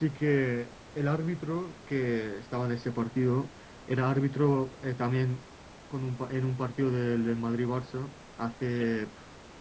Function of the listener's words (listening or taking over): listening